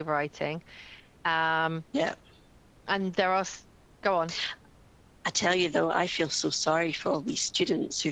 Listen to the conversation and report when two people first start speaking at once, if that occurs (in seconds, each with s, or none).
none